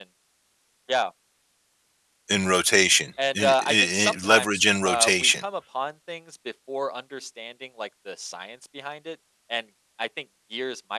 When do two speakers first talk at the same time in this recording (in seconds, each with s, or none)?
3.2 s